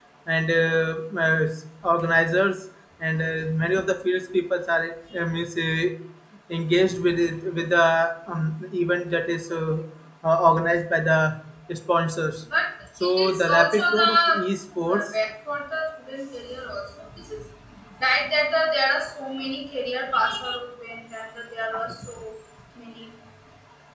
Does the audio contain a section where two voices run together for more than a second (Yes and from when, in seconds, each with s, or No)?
Yes, from 13.0 s